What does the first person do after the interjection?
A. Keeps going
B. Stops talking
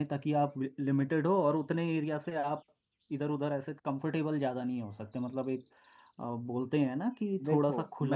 B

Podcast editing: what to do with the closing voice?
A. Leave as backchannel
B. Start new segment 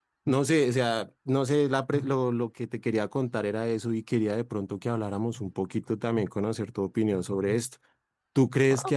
A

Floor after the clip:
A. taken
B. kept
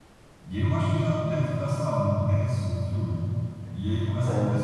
B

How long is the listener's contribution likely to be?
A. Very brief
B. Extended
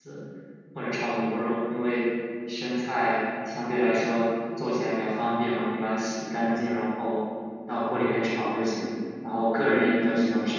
A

